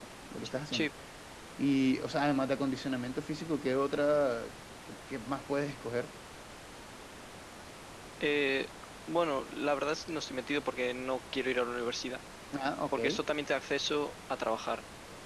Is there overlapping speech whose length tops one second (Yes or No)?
No